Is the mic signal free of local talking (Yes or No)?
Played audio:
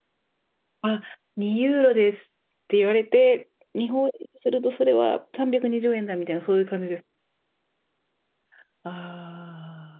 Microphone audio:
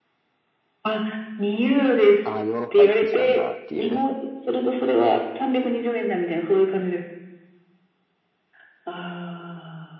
No